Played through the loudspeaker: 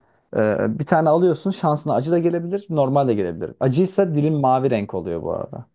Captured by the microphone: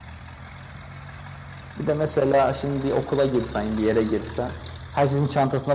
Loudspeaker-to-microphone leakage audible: No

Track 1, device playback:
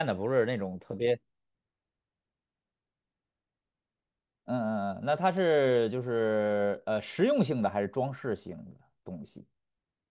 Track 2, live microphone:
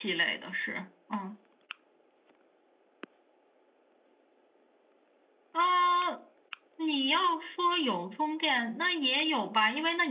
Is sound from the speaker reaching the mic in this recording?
No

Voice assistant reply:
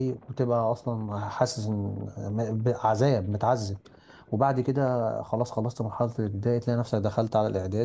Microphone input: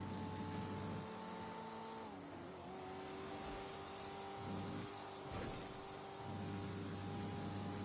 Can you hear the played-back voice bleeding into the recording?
No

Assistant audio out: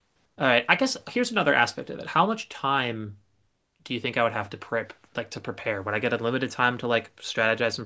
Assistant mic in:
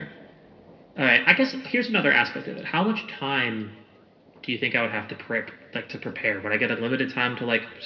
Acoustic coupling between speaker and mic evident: Yes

